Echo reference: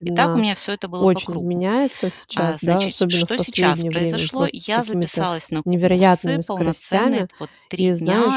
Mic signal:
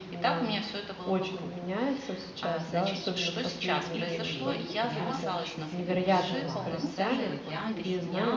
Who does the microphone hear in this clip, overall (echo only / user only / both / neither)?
both